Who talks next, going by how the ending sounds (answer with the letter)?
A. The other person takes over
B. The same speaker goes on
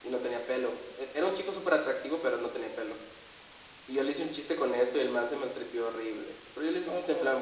B